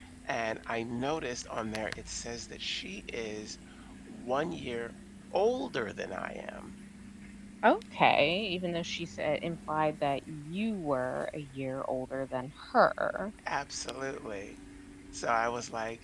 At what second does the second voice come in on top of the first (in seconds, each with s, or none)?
none